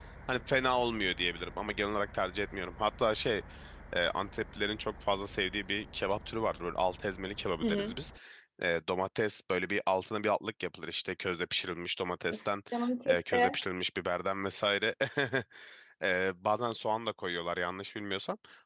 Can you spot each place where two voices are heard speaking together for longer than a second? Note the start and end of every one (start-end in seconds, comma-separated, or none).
none